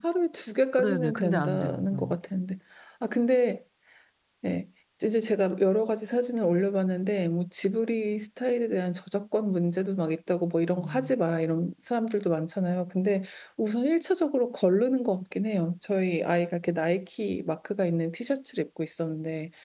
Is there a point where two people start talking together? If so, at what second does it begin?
1 s

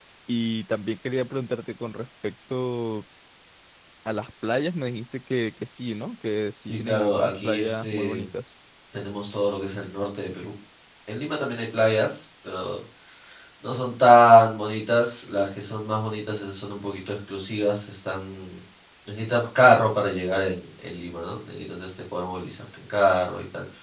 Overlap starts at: 7 s

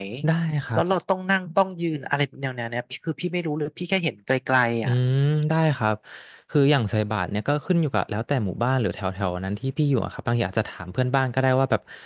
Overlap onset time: none

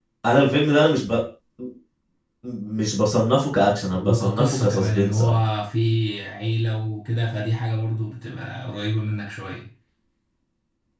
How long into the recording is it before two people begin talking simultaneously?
4 s

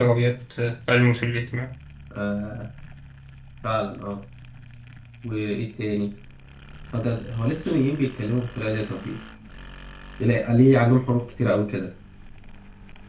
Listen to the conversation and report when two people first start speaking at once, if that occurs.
none

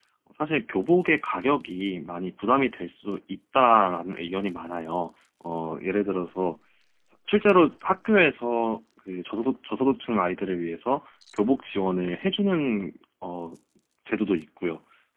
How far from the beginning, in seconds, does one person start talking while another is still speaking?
none

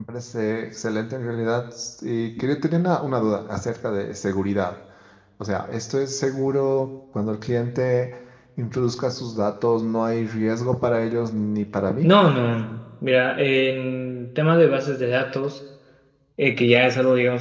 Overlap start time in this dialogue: none

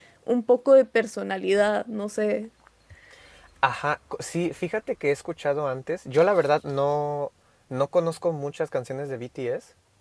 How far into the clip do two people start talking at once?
none

